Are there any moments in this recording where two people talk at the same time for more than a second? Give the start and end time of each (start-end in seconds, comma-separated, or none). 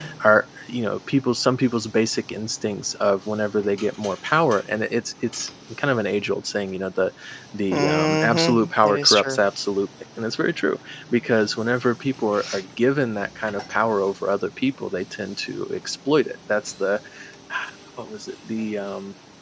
7.7-9.4